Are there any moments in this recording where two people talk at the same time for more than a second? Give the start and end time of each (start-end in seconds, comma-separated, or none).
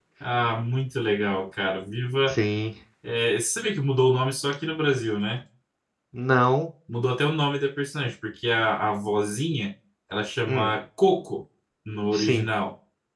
none